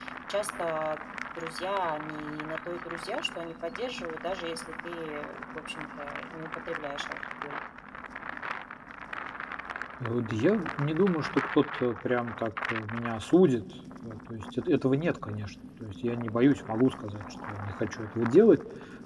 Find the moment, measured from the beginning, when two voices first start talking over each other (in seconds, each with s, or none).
none